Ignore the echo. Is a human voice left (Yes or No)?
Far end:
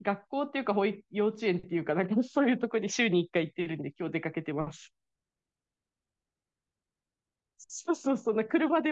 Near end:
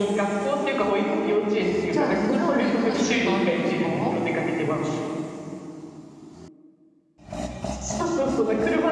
Yes